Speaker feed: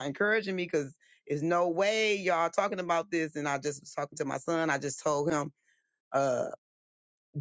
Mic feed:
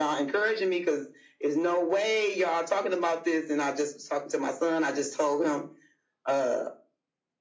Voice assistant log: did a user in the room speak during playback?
No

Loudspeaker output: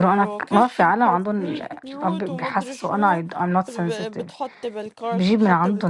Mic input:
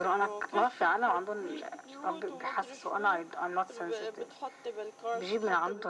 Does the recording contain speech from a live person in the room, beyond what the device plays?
No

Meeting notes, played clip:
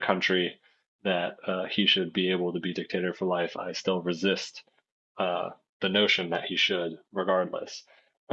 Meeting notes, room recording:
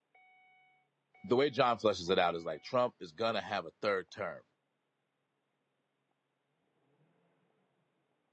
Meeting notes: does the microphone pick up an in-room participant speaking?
Yes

